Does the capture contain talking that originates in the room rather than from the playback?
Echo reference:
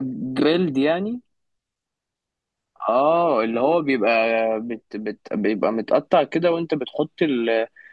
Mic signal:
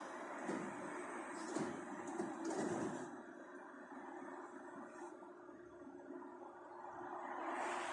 No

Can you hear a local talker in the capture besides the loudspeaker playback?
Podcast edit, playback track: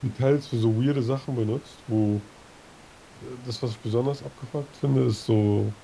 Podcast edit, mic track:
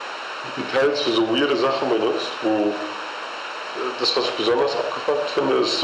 No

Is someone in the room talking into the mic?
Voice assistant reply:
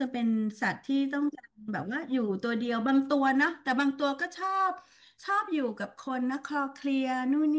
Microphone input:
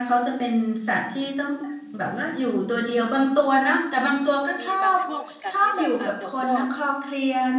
Yes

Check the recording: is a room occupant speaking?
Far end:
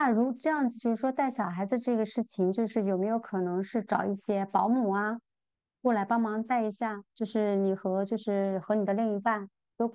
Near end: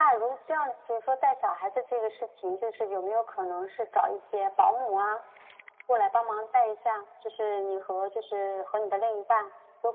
No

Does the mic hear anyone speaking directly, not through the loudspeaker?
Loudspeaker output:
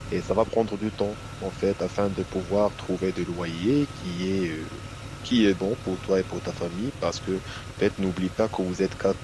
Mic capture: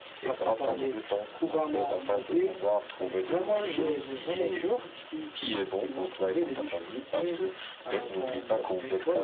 Yes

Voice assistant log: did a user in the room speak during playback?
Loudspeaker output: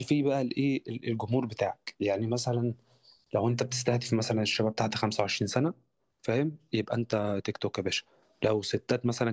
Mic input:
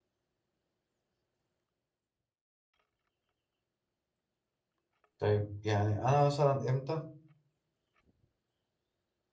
Yes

